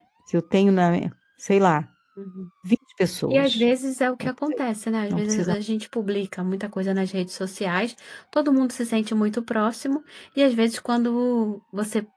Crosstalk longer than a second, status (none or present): none